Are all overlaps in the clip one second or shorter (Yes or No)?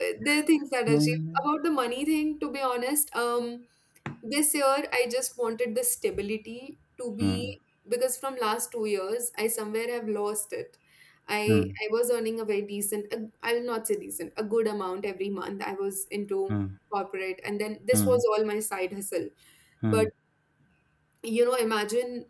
Yes